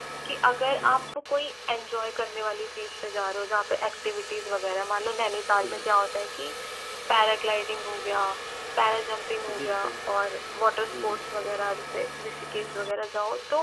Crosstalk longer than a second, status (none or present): none